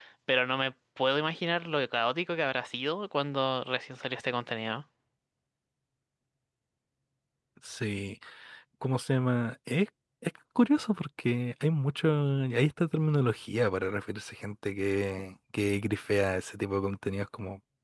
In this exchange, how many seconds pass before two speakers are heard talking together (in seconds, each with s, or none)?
none